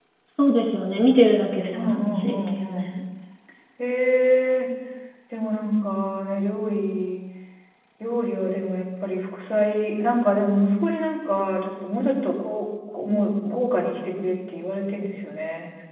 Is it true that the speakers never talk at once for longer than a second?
No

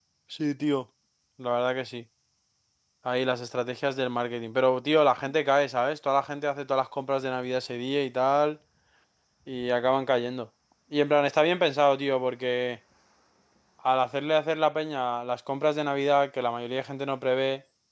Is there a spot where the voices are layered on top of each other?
No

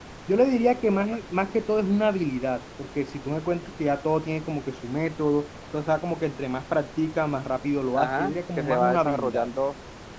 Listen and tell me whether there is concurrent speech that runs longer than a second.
Yes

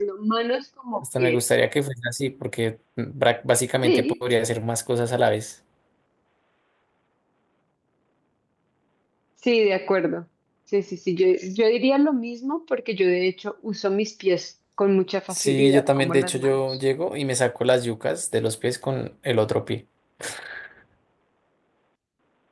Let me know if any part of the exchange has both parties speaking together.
Yes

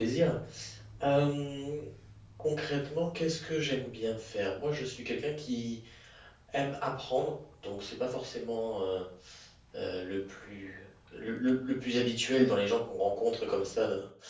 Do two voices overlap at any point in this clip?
No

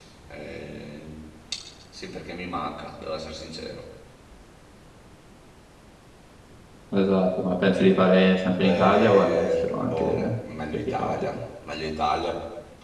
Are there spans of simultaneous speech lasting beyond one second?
Yes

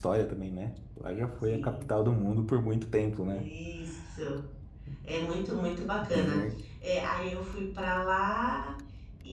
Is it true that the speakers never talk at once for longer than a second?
Yes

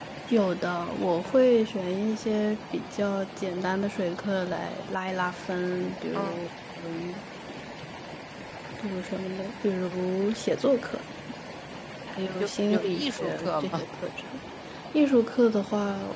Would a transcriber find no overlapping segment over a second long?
No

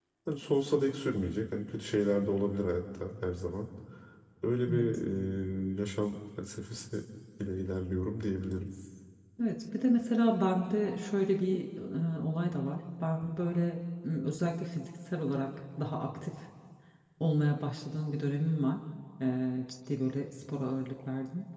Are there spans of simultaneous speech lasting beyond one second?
No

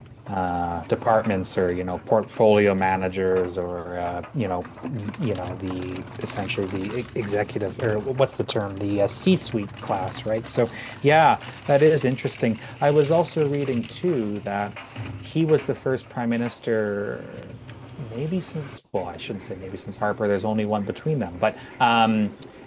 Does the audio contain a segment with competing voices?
No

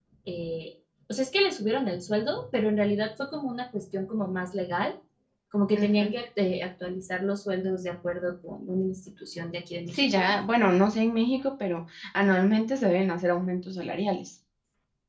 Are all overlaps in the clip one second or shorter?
Yes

